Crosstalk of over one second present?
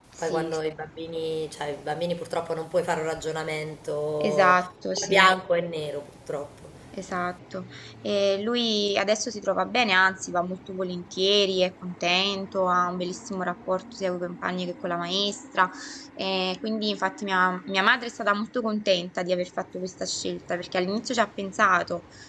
No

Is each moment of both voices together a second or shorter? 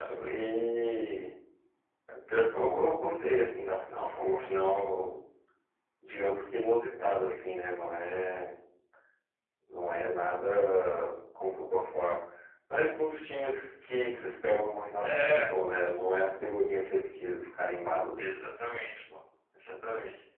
Yes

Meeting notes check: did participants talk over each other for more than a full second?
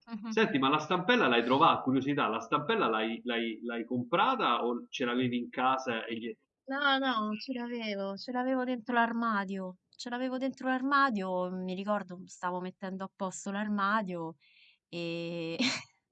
No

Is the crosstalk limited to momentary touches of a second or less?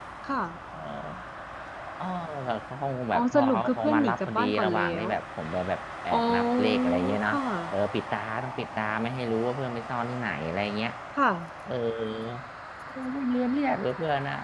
No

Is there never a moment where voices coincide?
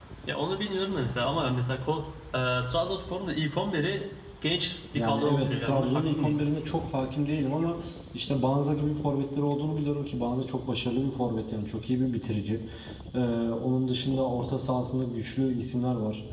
No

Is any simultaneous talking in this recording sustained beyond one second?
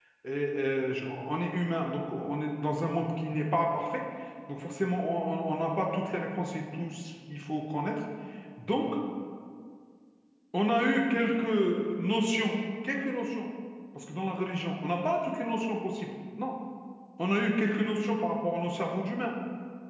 No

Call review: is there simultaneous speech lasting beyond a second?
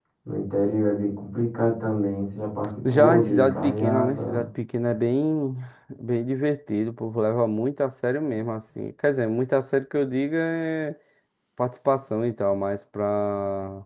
Yes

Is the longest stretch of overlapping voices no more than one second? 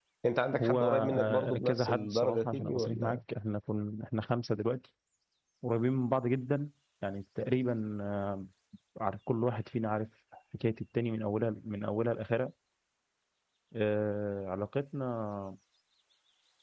No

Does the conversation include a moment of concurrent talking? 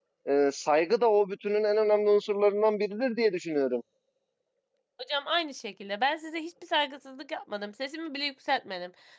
No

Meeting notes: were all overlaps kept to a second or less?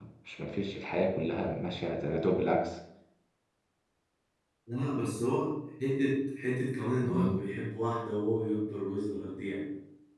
Yes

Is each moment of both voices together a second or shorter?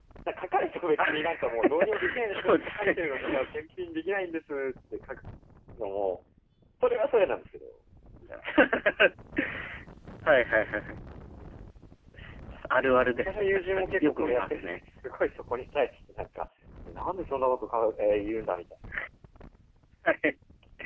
No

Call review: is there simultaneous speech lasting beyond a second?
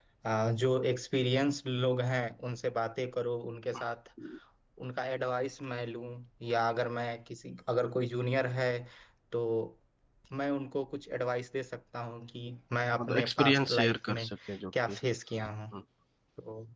Yes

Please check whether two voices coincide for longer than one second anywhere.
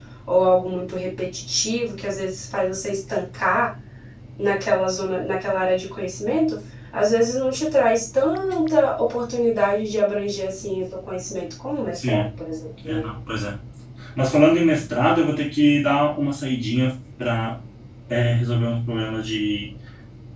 No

